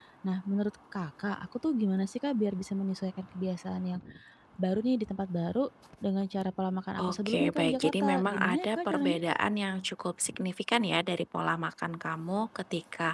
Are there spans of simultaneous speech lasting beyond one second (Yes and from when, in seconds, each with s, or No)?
Yes, from 7.0 s